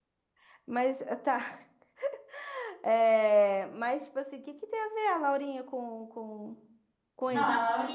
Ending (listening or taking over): taking over